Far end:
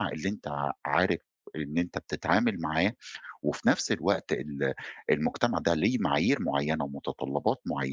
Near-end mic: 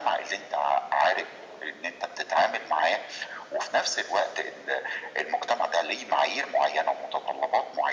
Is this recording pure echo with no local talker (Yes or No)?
Yes